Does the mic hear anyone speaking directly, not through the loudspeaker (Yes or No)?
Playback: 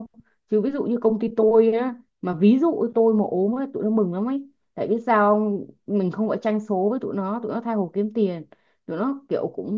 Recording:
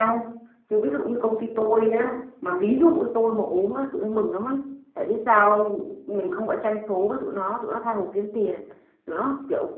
No